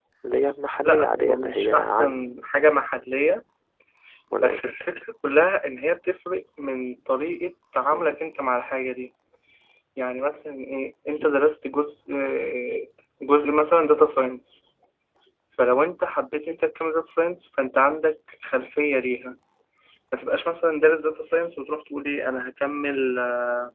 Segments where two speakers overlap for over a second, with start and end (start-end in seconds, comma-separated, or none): 0.8-2.2